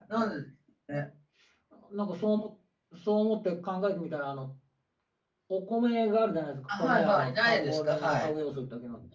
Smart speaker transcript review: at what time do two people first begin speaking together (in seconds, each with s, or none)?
6.7 s